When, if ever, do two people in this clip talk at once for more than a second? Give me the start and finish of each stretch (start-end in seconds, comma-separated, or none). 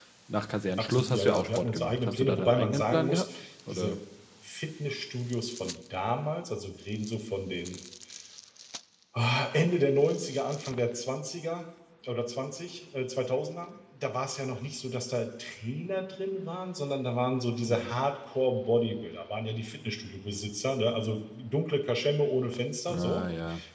0.8-3.2